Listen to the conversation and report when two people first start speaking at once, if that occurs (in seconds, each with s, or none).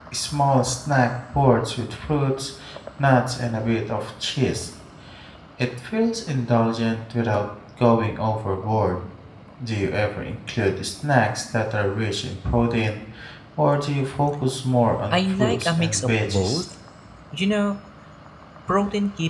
15.1 s